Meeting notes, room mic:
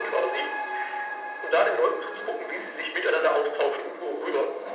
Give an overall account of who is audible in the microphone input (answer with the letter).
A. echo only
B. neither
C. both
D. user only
A